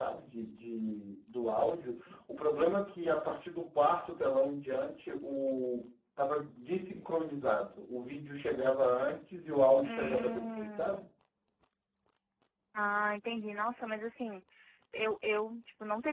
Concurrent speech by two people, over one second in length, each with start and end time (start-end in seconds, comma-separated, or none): 9.8-11.1